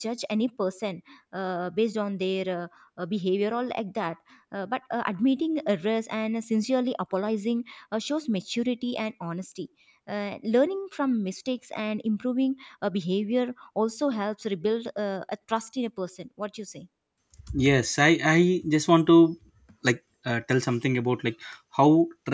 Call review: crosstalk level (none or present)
none